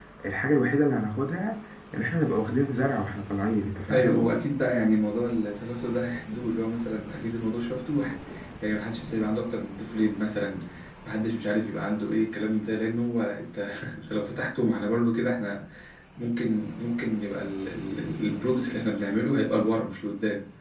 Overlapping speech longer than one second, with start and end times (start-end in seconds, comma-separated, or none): none